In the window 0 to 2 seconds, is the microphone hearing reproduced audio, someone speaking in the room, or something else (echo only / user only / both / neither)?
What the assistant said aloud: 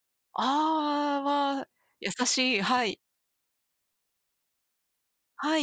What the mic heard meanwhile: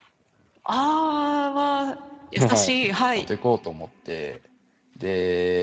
echo only